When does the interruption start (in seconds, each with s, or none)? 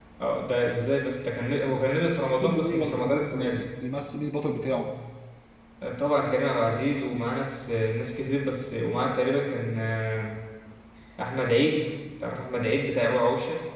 2.2 s